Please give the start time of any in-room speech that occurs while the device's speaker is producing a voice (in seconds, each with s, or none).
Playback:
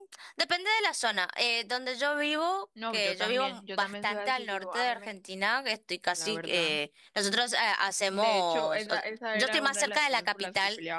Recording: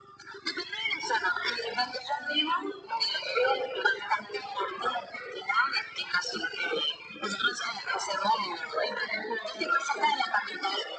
none